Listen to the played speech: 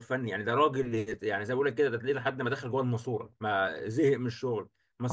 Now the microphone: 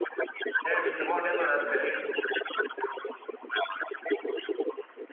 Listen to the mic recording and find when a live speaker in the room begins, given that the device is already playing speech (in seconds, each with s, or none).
0.6 s